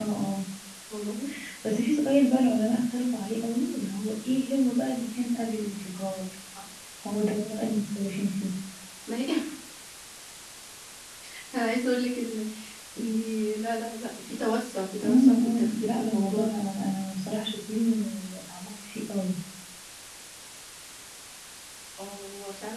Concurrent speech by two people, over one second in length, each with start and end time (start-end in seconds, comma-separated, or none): 15.0-16.6